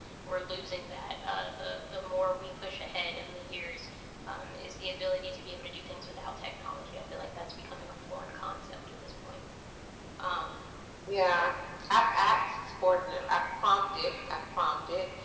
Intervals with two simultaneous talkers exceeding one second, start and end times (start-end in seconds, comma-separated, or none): none